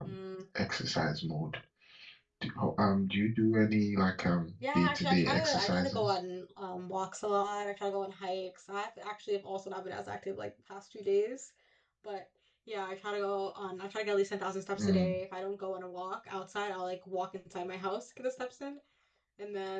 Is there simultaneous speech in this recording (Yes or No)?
Yes